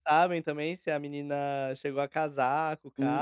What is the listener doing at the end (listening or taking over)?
taking over